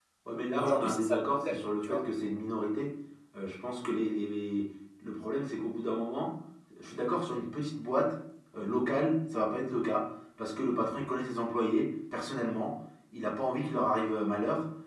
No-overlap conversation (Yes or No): No